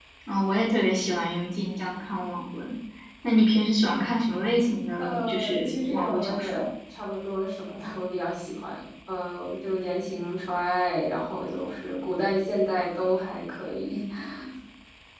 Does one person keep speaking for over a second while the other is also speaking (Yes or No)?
Yes